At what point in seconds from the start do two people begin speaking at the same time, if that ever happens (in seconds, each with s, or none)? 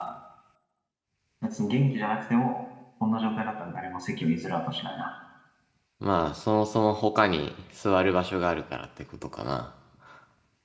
none